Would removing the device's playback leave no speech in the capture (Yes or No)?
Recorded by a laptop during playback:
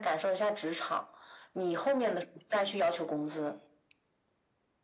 Yes